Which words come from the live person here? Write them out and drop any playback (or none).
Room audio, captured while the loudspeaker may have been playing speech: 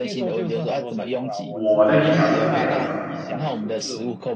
我的臆想是这个样子了，